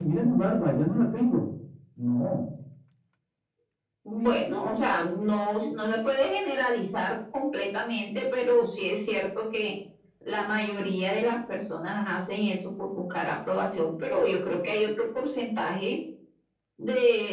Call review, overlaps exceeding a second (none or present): none